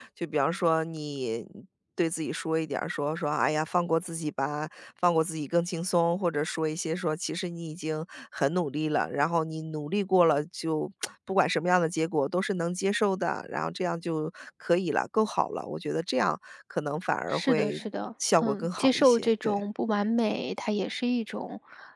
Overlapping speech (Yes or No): Yes